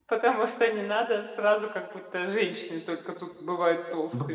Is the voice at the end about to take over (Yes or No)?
Yes